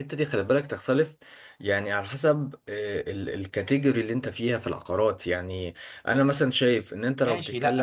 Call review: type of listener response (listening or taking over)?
taking over